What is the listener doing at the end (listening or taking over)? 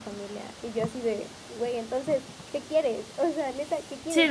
listening